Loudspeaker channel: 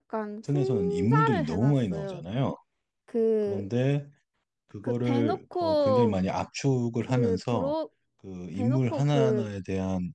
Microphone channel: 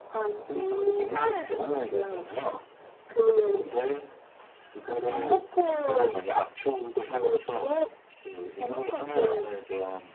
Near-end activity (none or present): none